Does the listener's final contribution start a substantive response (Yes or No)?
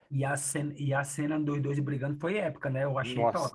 Yes